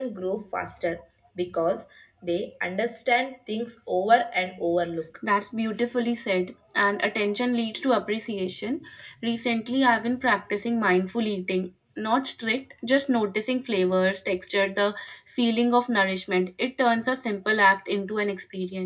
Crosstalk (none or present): none